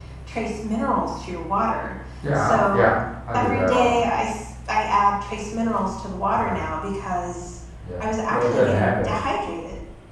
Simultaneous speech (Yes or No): Yes